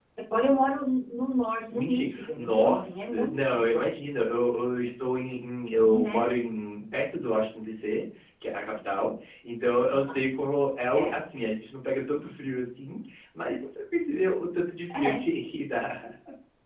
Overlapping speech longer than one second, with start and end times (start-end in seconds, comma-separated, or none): 1.7-3.8